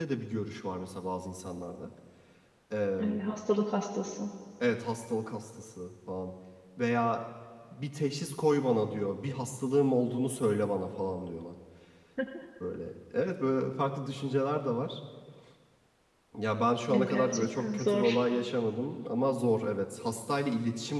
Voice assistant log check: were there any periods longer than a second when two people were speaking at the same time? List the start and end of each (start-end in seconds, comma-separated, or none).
16.9-18.2